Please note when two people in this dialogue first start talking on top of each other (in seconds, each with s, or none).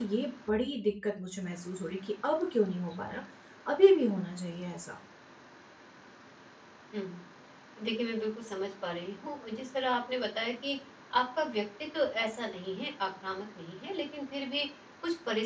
none